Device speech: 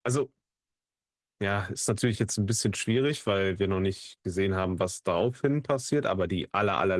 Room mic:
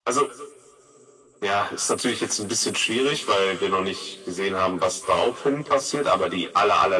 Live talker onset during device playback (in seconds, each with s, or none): none